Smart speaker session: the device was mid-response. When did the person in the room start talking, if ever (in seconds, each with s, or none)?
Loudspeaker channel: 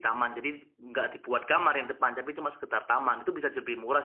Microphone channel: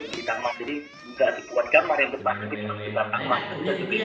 2.2 s